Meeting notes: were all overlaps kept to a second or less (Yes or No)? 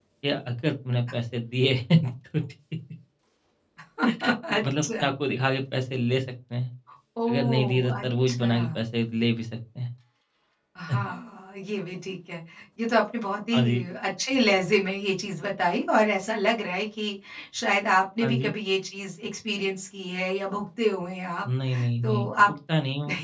No